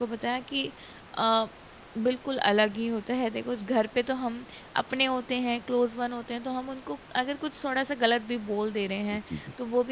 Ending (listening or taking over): listening